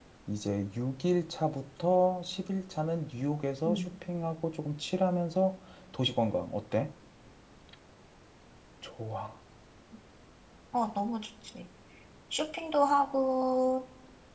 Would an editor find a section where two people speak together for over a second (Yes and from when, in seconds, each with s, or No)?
No